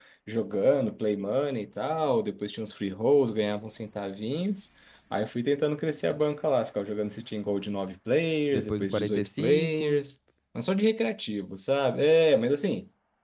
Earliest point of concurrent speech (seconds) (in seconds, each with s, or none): 8.5 s